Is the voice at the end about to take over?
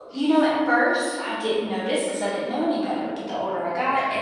No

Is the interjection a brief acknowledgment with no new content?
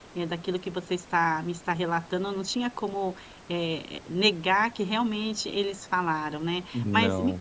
Yes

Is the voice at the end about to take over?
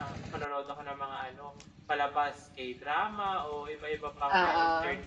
No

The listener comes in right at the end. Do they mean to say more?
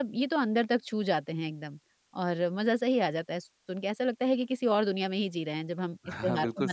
Yes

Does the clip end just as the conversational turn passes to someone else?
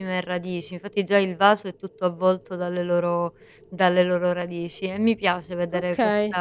No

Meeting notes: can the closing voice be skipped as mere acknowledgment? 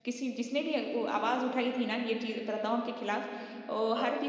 Yes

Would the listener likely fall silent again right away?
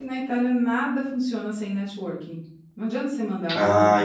No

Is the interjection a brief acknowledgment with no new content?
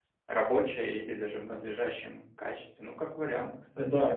No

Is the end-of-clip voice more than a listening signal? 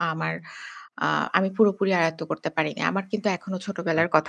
No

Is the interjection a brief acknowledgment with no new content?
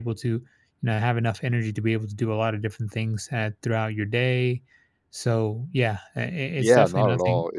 No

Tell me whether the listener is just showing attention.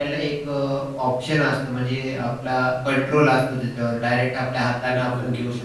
Yes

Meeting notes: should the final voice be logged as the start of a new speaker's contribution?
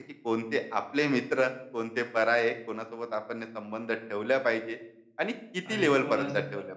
Yes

